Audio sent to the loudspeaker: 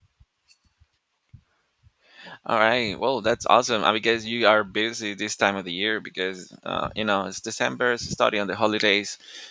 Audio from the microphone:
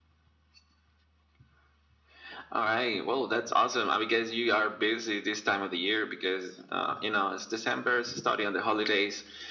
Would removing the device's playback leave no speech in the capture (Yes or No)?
Yes